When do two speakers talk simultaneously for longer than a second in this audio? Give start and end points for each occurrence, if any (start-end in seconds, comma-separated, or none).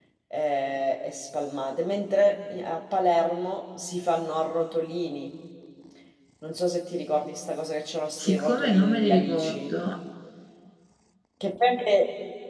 8.2-9.8